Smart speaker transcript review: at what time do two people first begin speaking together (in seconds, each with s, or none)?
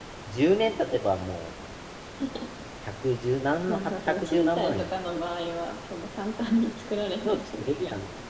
3.7 s